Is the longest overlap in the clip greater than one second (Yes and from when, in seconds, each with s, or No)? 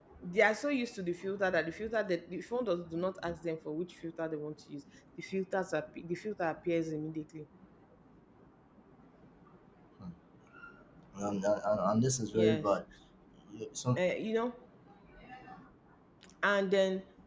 No